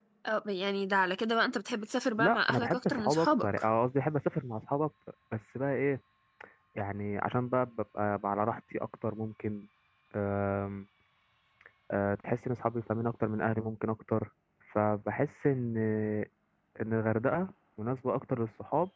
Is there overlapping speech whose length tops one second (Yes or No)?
Yes